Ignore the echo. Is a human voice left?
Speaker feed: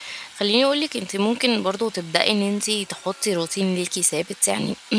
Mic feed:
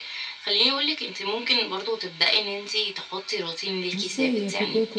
Yes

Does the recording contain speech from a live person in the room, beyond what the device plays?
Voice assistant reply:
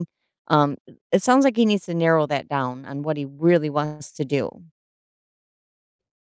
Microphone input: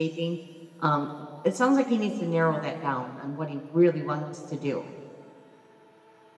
No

